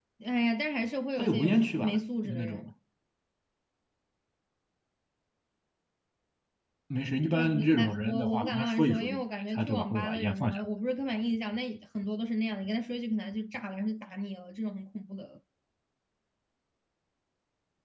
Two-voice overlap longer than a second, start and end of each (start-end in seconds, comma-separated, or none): 1.2-2.6, 7.3-10.6